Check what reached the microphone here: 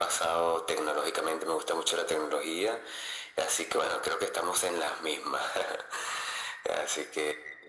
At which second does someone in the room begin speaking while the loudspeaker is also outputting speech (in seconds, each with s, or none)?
none